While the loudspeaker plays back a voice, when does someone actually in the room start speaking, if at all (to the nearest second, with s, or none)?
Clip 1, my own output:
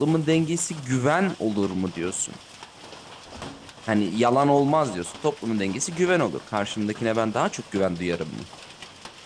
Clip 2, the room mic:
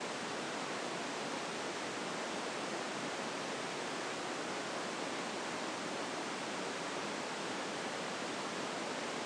none